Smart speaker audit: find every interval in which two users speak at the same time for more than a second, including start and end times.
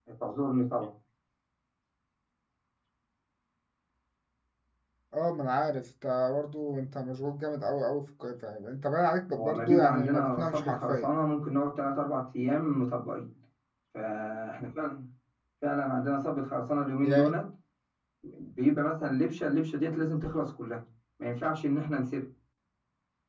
9.4-11.1

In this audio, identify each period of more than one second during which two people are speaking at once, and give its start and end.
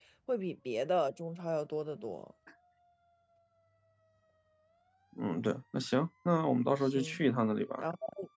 none

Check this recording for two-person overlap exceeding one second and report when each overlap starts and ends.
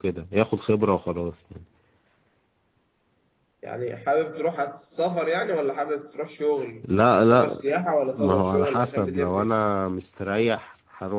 8.1-9.5

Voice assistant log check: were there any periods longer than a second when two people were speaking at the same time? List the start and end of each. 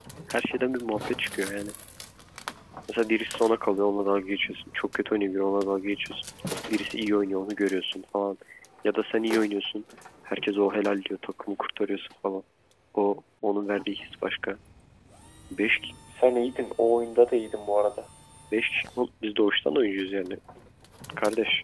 none

